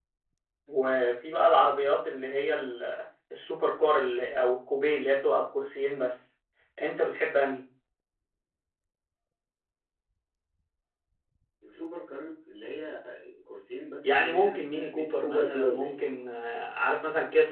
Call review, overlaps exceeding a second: present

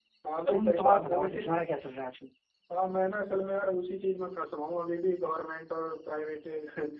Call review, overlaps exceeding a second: present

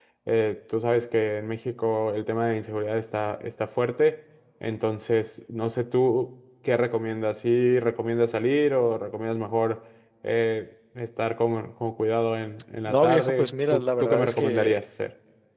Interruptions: present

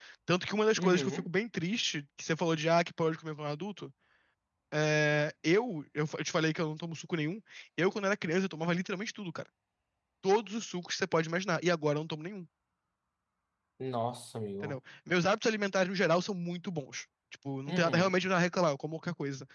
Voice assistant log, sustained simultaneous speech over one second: none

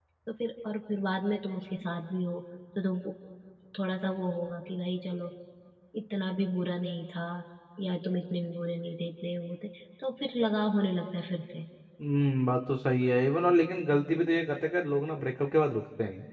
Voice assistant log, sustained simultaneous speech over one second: none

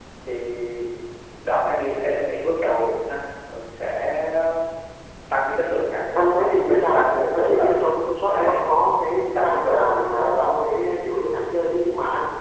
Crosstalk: present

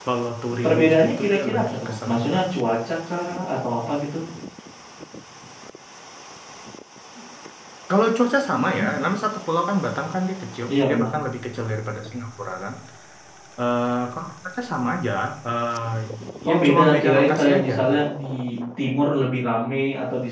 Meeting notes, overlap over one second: present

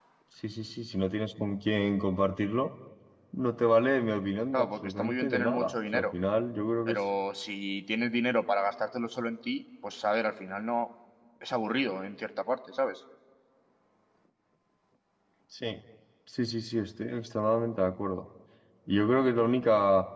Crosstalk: present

